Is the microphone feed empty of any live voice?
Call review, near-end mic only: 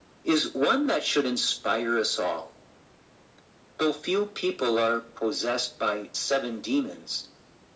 Yes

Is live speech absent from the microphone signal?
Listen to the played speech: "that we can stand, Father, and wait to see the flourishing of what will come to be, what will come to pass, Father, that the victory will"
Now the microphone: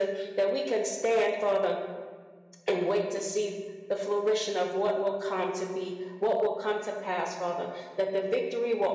Yes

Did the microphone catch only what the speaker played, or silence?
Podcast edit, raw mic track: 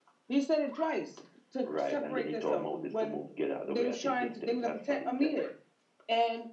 Yes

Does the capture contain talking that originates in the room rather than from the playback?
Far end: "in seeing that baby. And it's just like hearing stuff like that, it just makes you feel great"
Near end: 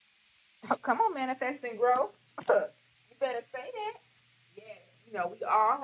Yes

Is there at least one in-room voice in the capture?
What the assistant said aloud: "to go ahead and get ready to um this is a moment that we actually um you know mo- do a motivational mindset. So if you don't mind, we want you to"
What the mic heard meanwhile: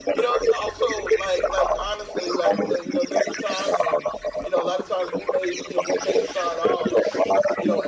Yes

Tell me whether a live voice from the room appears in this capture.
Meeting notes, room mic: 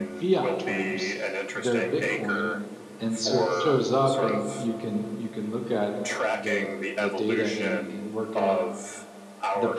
Yes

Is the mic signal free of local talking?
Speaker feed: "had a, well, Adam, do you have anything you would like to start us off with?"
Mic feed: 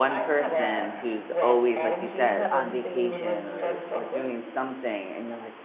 No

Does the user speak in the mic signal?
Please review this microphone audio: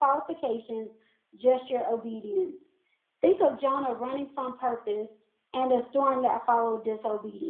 Yes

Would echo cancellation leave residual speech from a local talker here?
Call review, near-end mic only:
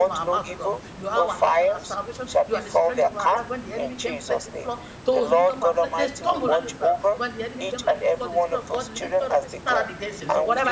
Yes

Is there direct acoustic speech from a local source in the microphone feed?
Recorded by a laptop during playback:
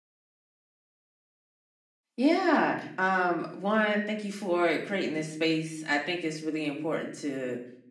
Yes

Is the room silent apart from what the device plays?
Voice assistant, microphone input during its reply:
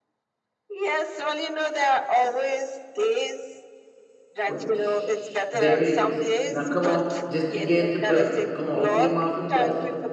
No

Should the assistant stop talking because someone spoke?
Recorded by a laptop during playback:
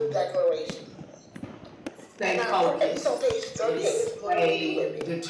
Yes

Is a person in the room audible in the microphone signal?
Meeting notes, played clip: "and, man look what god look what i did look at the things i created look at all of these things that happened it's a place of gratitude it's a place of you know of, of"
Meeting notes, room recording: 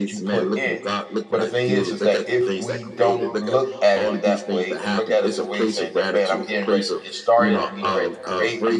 Yes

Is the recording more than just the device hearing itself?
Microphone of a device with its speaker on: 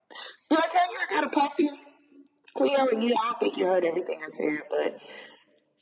No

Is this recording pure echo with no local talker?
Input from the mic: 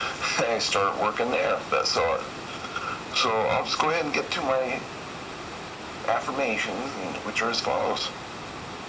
Yes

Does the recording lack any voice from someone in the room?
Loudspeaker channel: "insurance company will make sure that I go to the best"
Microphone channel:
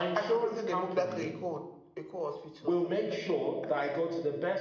No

